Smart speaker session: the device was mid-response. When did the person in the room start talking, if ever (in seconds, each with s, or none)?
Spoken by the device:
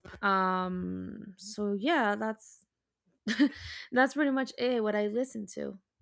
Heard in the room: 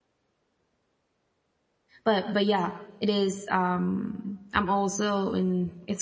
2.0 s